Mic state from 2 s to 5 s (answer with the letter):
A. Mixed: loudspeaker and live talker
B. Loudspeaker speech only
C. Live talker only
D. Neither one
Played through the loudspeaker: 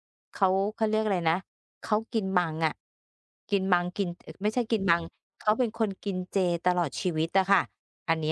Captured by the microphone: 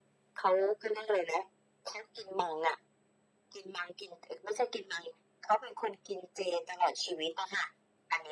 B